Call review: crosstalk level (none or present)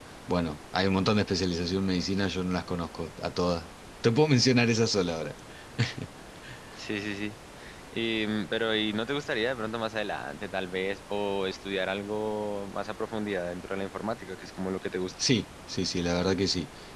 none